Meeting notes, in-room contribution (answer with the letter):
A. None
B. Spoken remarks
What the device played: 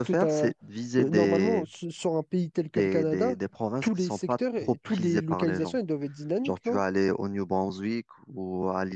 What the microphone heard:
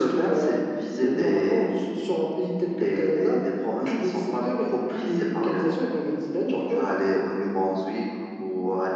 A